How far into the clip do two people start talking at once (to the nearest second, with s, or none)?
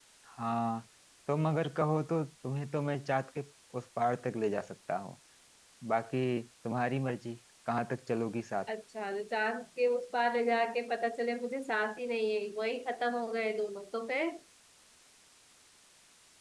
none